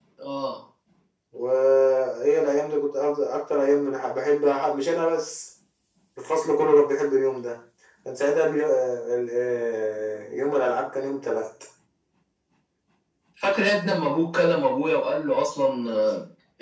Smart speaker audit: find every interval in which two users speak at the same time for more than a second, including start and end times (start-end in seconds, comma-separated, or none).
none